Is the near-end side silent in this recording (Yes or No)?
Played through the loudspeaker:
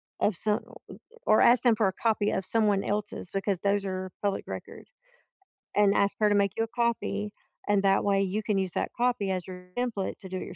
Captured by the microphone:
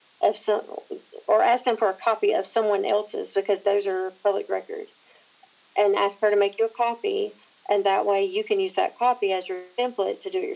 Yes